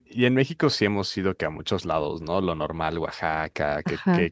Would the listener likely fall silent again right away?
Yes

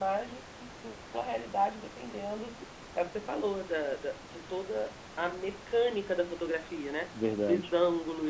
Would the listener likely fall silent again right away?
Yes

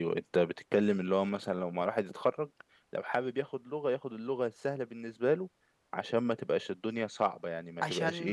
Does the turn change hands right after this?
Yes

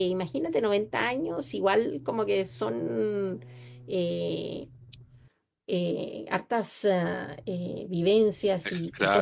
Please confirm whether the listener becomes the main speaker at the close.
No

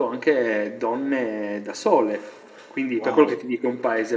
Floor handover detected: No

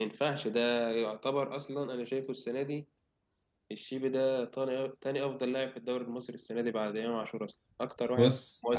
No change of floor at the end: No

